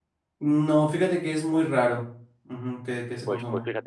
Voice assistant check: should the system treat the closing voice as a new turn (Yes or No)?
Yes